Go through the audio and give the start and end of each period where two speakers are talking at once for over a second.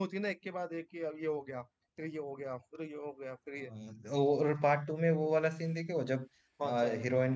none

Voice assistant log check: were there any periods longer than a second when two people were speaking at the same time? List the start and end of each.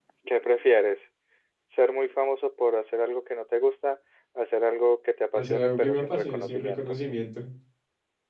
5.4-7.0

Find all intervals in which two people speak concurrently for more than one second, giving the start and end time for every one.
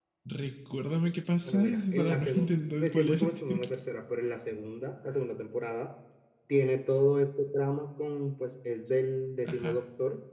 1.4-3.4

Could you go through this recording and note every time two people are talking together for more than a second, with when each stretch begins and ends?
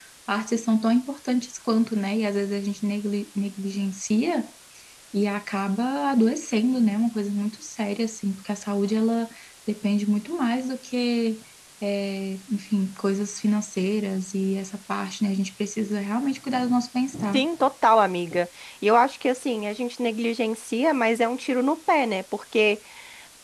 none

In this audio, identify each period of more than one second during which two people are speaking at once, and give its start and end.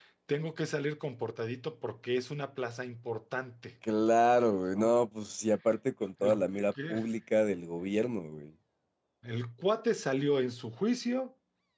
none

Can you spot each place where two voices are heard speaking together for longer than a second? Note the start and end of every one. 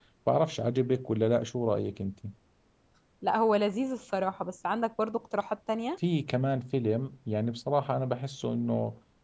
none

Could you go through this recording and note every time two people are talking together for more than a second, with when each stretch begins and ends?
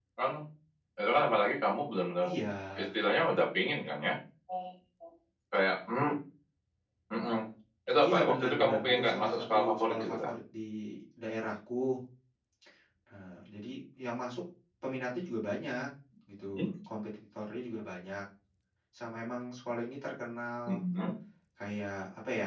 8.0-10.3

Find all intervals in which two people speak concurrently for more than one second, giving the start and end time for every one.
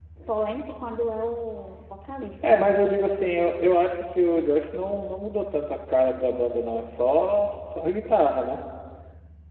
none

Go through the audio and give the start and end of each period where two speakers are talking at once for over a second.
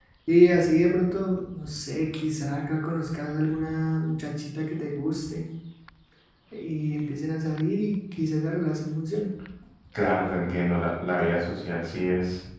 none

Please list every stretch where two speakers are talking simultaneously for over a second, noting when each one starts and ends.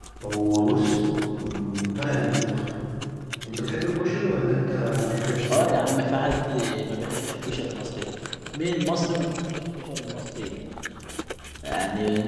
none

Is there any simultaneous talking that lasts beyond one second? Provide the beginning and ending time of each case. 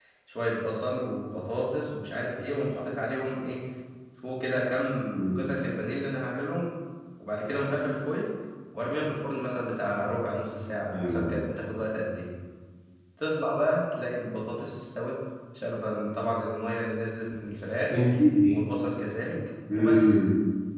none

